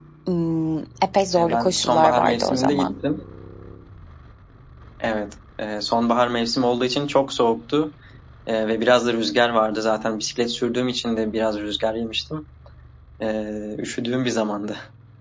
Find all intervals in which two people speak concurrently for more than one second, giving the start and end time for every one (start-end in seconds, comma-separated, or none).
1.4-2.9